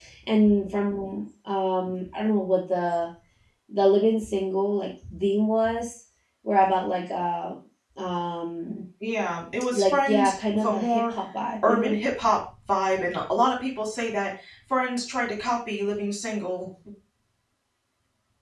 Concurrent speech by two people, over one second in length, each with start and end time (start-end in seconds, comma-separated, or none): 9.7-11.2